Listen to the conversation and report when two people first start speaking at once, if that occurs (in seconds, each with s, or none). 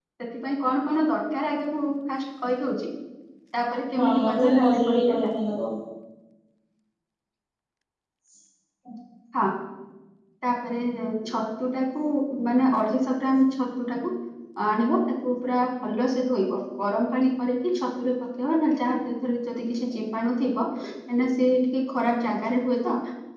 4.0 s